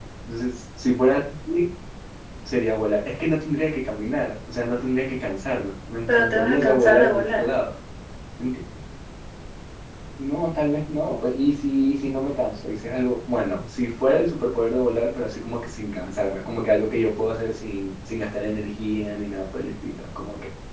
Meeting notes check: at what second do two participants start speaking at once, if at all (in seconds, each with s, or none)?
6.1 s